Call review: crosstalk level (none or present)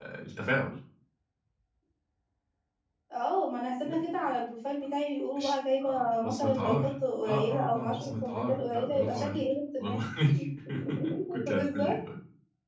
present